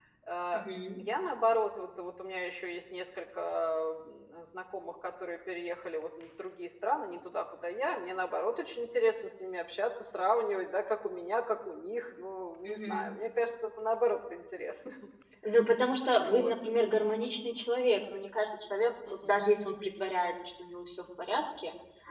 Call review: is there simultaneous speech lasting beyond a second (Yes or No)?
No